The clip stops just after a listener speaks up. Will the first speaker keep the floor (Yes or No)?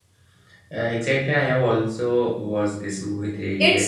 No